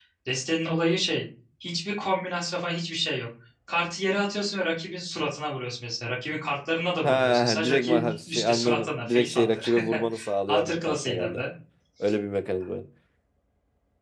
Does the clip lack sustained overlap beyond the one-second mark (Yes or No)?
No